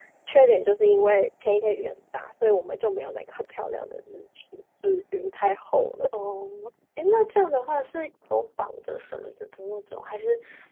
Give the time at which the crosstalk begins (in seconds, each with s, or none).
none